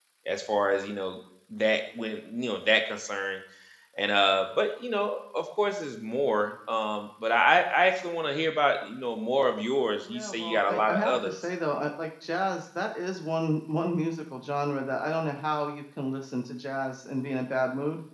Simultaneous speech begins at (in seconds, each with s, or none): 10.1 s